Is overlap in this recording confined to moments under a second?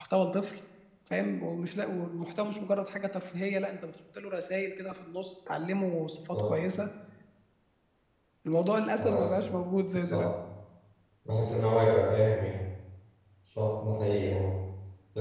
Yes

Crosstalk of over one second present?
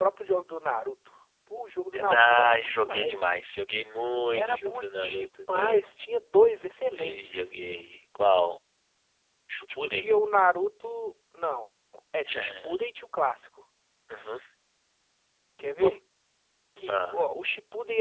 Yes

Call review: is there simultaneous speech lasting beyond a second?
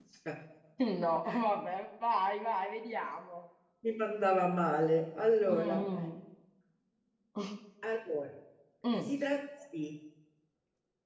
No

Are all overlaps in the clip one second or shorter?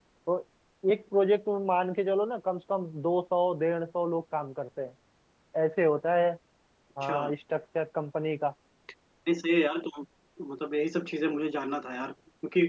Yes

